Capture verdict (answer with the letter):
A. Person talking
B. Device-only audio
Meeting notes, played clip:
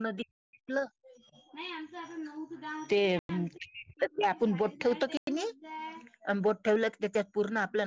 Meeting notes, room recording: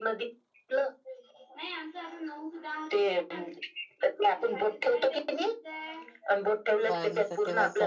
A